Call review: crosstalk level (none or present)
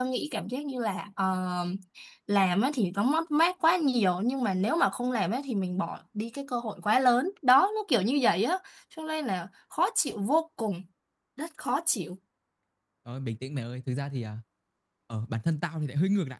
none